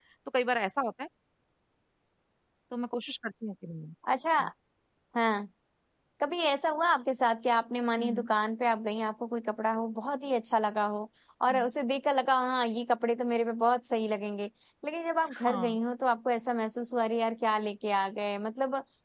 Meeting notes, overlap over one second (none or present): none